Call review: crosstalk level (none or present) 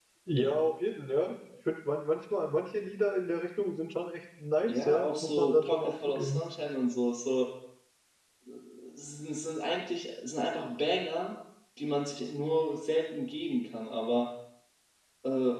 present